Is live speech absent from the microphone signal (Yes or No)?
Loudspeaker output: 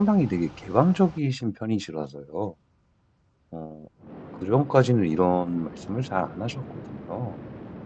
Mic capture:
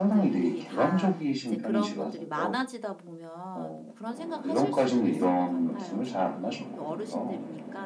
No